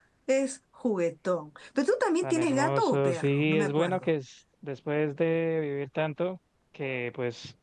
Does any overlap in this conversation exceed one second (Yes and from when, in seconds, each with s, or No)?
Yes, from 2.2 s